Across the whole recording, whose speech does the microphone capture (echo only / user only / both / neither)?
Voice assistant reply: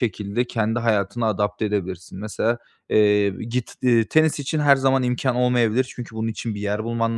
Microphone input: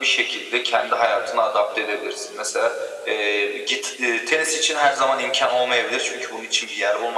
echo only